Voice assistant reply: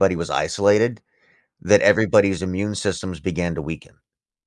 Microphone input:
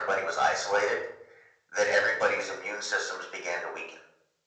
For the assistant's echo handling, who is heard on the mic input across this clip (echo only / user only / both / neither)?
echo only